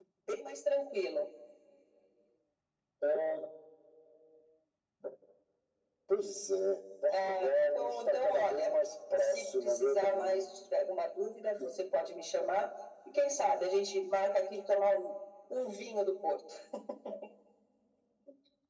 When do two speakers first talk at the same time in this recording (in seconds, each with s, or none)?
7.1 s